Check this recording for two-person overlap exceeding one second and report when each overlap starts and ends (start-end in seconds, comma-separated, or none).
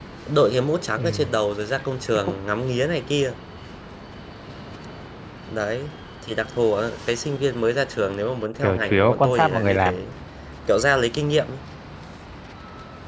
8.6-10.0